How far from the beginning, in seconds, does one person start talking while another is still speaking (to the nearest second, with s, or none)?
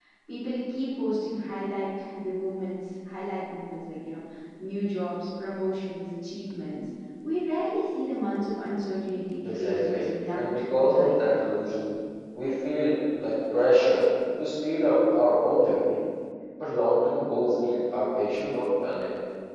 9 s